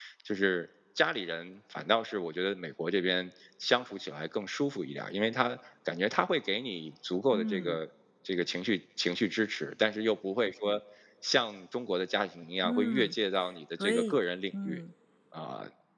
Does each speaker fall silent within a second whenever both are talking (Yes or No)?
Yes